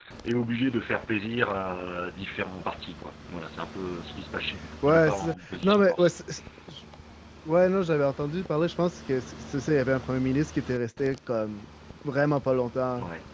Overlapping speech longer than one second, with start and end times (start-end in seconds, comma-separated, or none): 4.8-6.1